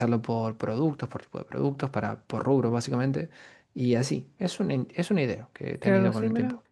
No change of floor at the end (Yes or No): No